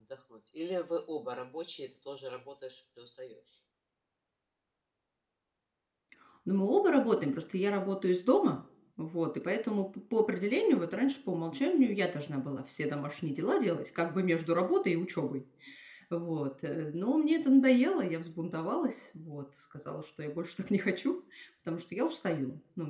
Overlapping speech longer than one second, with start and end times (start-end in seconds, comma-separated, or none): none